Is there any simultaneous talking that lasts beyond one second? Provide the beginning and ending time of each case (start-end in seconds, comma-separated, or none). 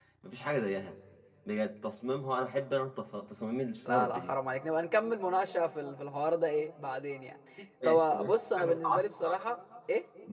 7.8-9.4